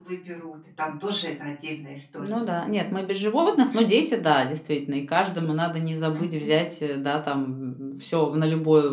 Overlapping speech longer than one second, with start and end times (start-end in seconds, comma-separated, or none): none